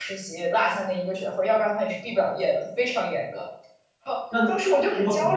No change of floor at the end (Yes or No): No